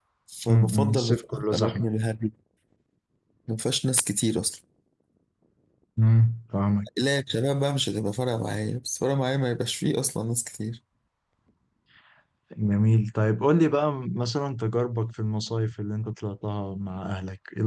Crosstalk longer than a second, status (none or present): present